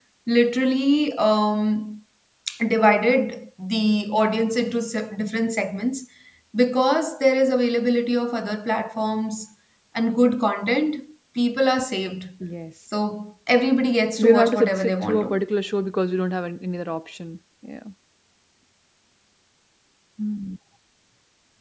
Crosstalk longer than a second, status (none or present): present